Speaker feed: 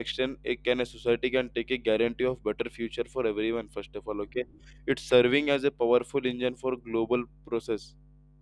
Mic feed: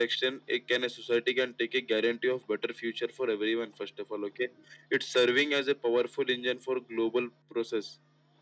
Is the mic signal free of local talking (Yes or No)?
Yes